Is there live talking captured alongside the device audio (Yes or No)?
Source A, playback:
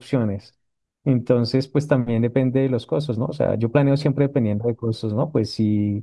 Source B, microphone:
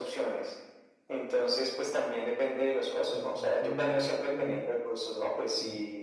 Yes